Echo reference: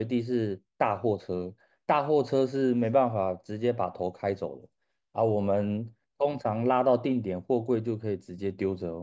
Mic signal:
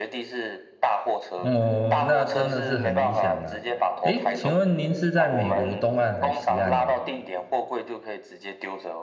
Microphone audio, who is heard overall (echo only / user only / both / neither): both